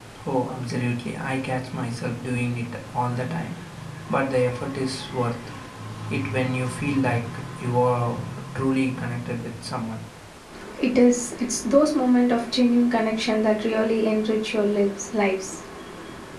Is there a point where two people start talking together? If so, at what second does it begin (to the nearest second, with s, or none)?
none